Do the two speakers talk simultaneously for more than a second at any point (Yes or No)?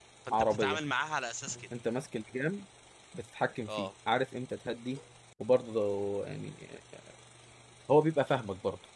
No